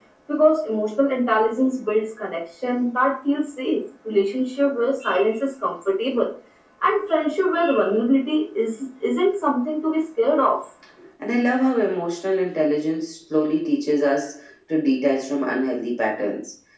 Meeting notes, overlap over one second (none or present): none